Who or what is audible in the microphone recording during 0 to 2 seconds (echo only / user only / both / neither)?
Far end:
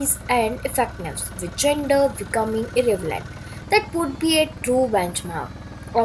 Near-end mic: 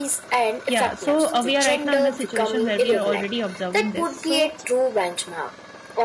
both